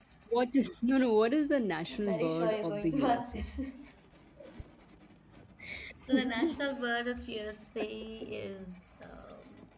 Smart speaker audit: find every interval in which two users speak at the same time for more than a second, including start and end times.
1.9-3.5

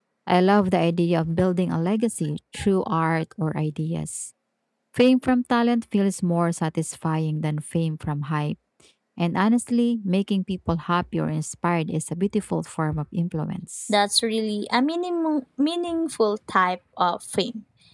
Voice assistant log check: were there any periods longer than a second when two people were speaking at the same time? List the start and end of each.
none

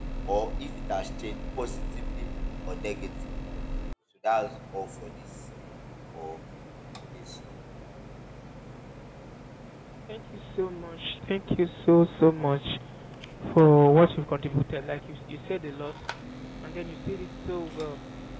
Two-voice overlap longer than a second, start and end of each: none

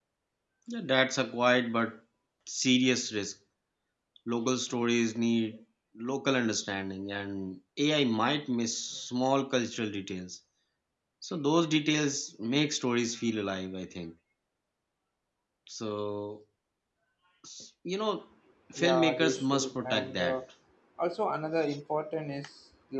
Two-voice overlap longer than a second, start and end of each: 18.8-20.4

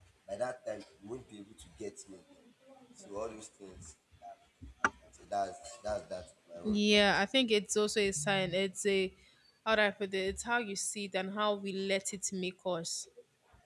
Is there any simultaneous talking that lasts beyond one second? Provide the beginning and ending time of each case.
none

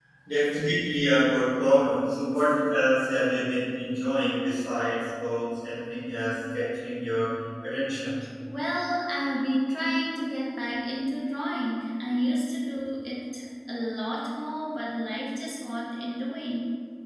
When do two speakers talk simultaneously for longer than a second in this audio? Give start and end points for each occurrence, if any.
none

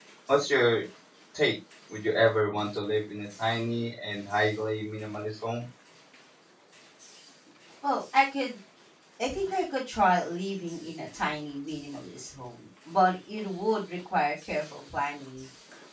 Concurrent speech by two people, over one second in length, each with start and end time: none

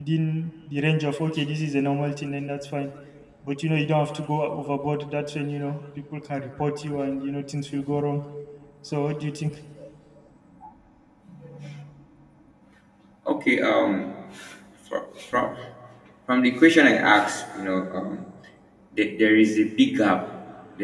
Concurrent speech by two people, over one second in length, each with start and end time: none

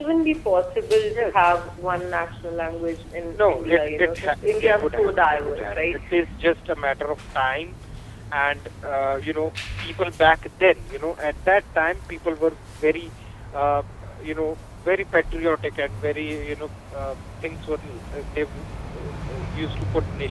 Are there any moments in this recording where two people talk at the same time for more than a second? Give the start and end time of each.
3.4-6.0

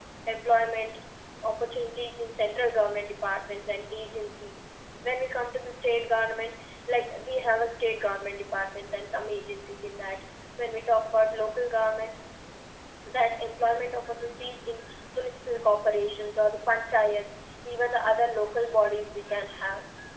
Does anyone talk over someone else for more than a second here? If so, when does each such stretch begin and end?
none

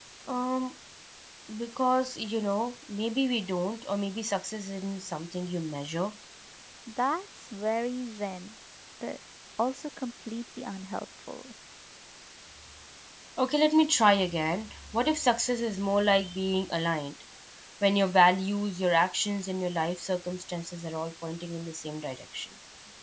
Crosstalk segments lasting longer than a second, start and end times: none

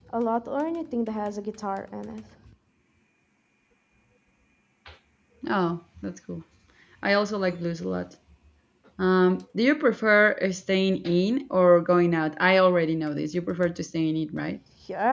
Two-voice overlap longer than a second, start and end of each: none

